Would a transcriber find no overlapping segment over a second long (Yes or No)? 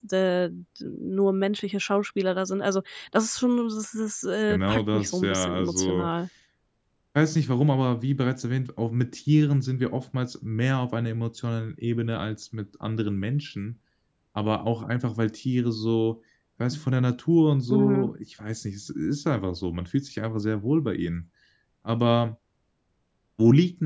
No